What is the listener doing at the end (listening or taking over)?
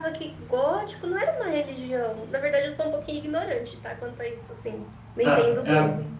taking over